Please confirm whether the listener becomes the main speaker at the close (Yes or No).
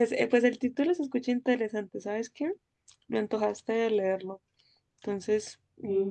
Yes